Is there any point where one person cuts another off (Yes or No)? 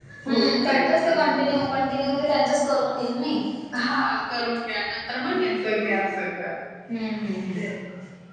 Yes